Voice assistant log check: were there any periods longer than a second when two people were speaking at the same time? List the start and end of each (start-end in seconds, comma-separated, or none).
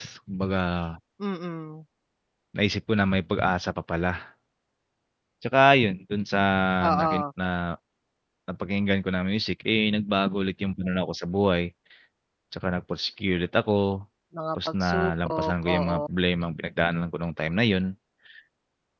14.7-16.0